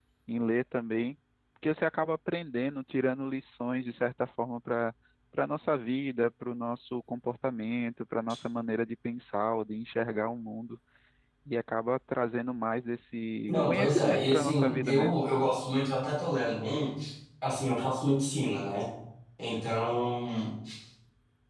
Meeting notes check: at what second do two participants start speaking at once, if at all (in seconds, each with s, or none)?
13.5 s